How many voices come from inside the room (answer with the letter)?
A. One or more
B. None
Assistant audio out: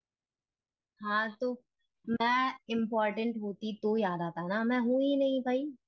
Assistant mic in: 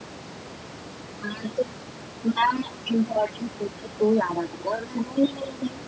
B